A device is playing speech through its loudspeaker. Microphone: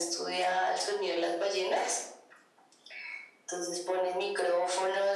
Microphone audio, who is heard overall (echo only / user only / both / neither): echo only